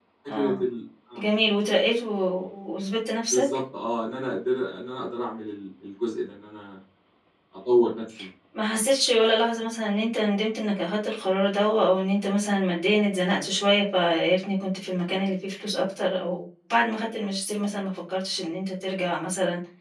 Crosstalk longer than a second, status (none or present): none